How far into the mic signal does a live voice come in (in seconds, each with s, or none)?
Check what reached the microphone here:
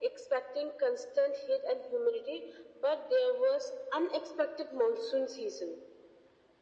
none